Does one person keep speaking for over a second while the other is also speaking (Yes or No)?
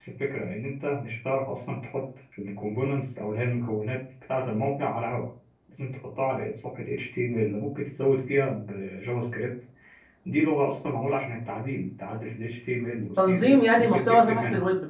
Yes